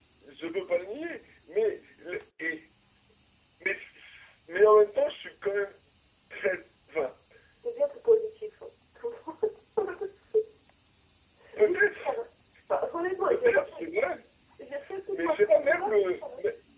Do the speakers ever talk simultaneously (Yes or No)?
Yes